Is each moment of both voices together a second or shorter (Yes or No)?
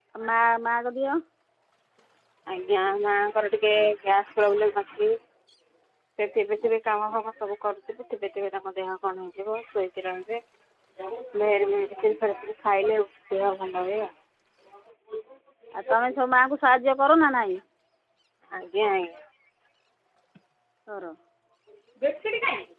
Yes